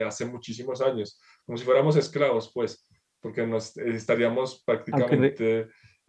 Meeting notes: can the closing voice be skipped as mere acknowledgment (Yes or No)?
Yes